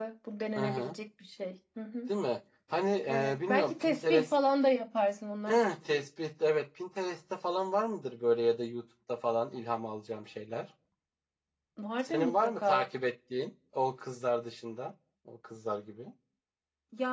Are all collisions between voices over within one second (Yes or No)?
No